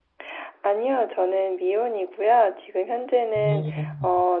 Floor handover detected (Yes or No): No